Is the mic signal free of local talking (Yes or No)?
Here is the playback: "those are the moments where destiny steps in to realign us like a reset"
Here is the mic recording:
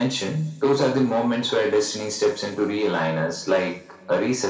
Yes